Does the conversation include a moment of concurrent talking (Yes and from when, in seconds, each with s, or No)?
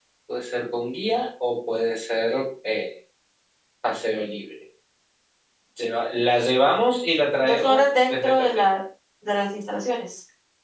Yes, from 7.4 s